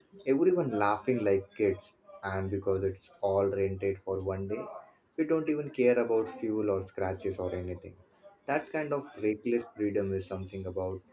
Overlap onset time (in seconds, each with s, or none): none